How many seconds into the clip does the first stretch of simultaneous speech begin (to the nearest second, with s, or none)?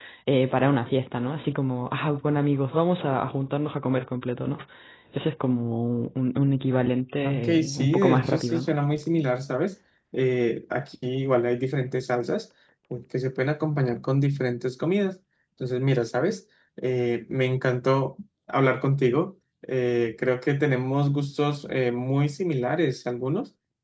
7 s